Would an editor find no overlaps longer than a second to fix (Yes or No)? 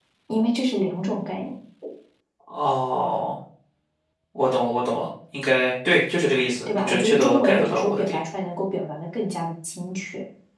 No